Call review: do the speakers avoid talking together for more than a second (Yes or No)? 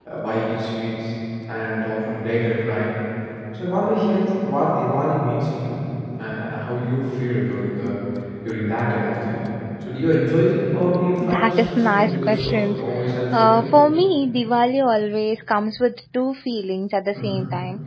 No